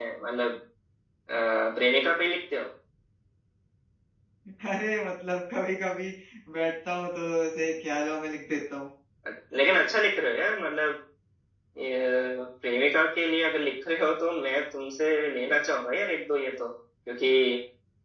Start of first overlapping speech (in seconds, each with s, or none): none